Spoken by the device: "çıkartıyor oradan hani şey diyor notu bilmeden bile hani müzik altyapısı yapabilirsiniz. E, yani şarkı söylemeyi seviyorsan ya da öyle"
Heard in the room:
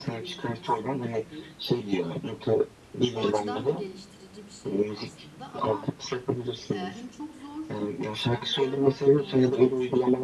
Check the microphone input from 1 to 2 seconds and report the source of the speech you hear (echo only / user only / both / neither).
both